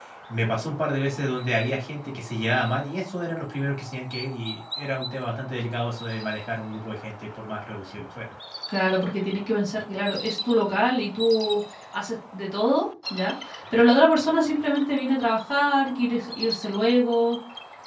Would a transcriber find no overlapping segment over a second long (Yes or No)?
Yes